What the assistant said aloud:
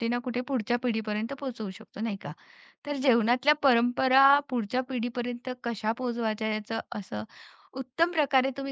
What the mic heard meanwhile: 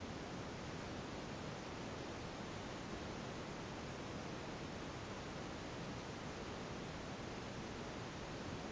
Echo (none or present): none